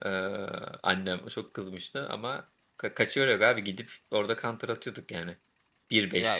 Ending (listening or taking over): taking over